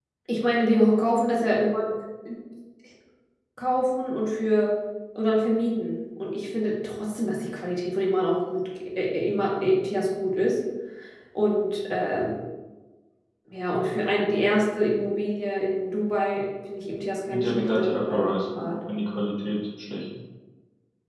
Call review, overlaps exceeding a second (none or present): present